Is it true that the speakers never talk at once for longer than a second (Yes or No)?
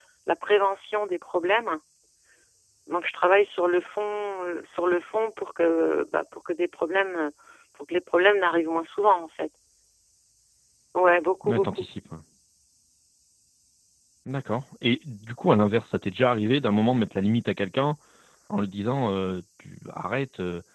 Yes